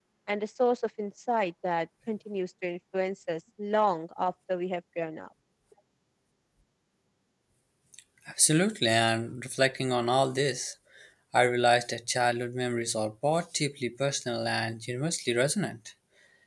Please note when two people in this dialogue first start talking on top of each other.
none

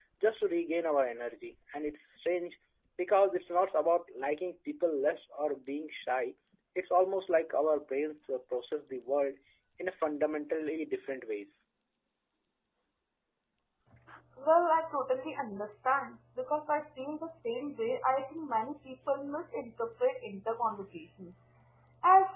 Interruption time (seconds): none

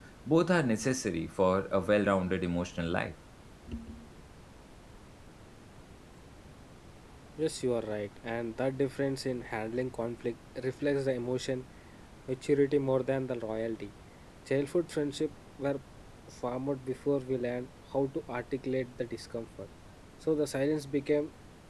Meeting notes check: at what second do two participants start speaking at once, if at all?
none

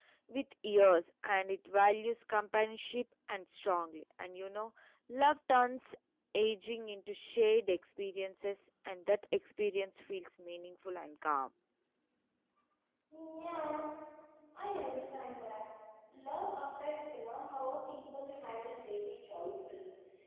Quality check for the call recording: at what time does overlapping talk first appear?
none

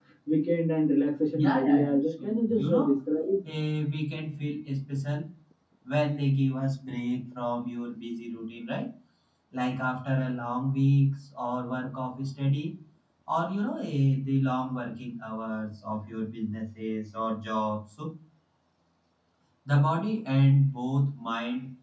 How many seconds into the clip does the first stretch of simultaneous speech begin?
1.3 s

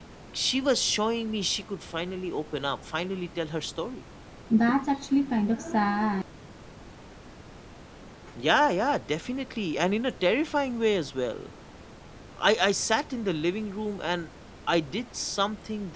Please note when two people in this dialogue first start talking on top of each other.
none

